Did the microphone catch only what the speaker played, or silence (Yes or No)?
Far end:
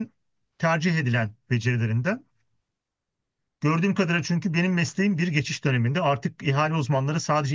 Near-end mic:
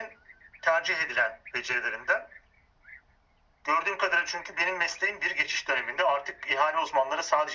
Yes